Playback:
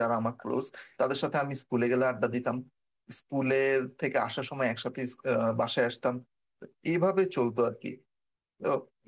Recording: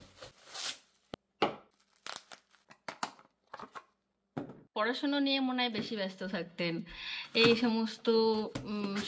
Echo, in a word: none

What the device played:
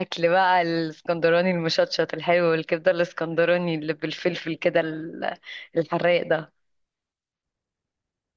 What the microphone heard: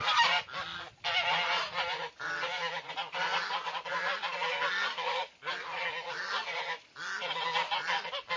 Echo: none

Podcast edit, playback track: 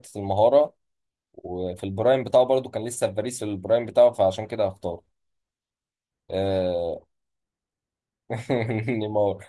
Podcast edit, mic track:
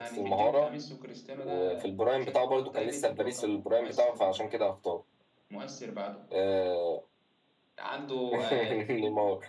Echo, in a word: present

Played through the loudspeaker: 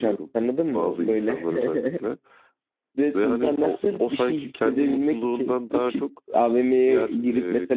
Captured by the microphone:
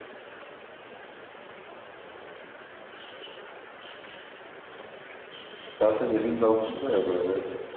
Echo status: none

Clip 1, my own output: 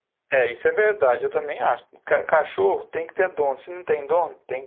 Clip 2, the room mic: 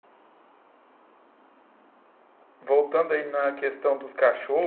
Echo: none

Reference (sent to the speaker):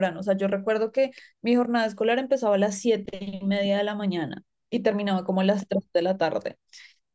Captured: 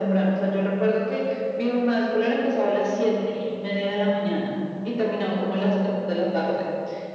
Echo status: present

